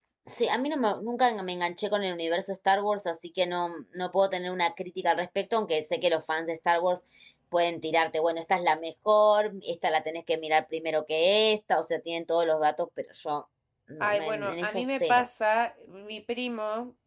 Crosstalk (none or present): present